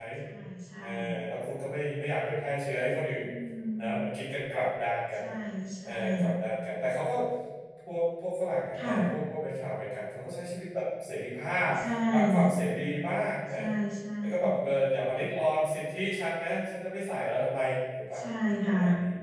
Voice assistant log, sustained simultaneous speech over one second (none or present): none